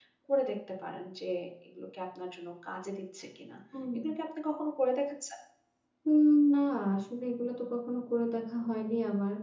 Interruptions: none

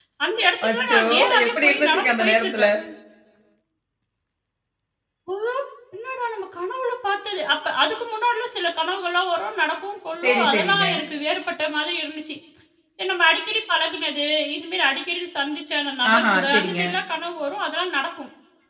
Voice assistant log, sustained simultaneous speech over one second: present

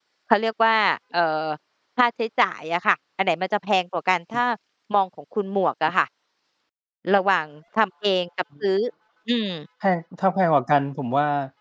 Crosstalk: none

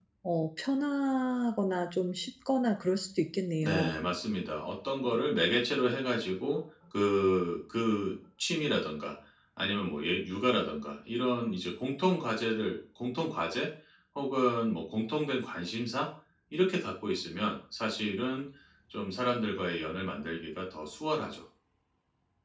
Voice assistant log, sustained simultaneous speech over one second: none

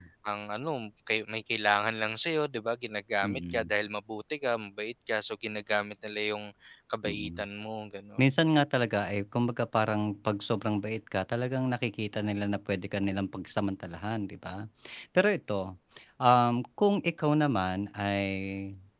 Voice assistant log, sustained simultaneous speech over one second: none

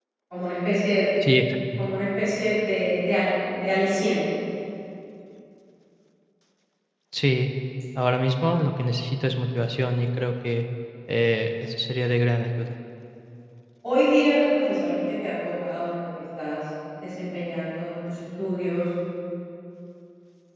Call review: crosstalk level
none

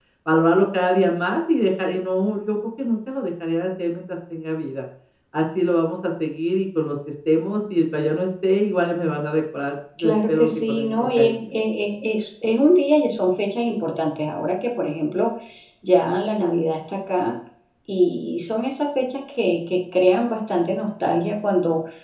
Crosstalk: present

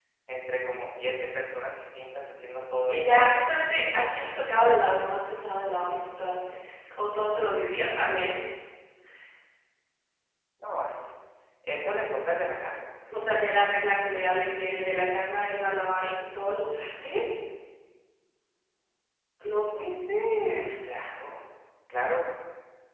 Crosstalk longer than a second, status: none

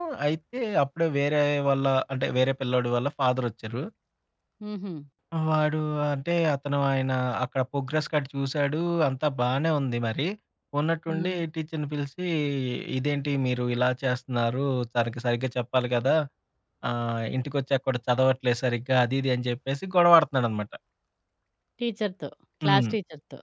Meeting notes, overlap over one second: none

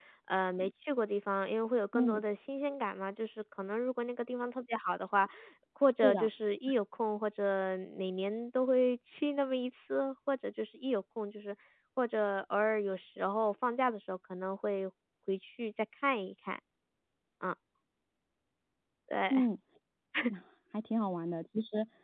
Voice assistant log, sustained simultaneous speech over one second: none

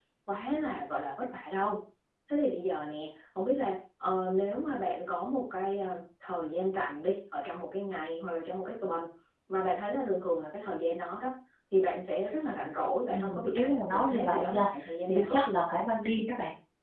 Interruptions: present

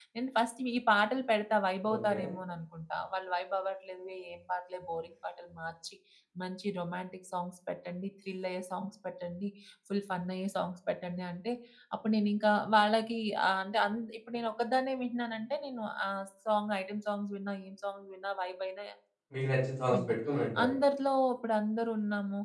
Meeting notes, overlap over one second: none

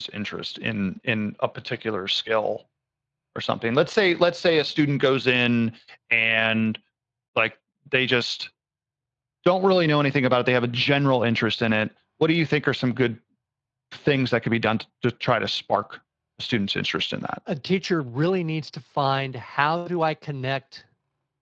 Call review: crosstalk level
none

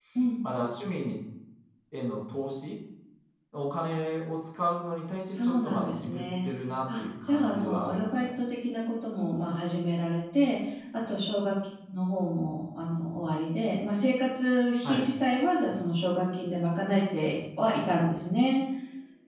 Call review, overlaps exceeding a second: present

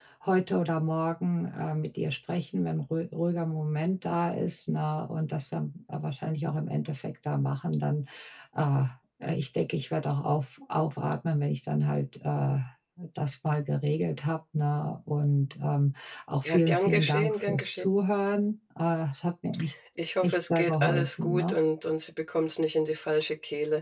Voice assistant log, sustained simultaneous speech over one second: present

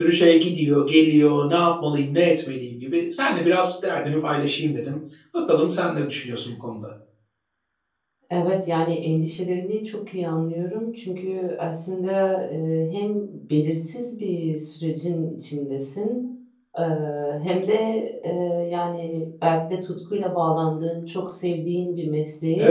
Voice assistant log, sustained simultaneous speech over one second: none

